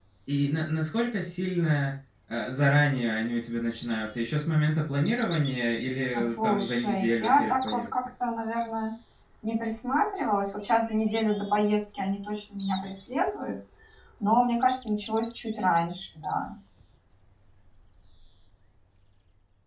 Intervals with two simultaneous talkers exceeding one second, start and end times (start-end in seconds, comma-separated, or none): 6.1-7.9